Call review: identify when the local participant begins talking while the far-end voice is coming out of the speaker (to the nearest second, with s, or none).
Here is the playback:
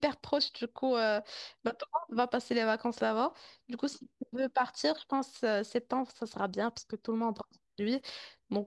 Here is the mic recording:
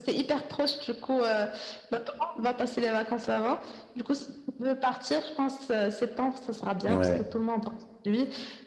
7 s